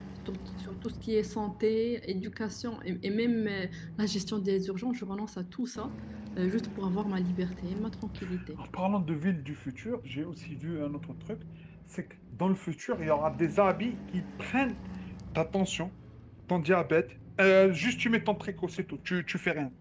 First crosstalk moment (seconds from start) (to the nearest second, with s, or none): none